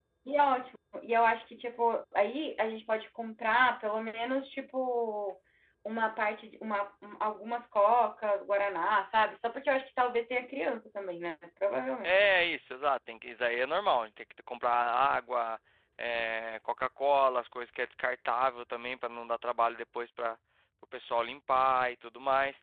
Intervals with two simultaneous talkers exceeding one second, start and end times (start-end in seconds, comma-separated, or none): none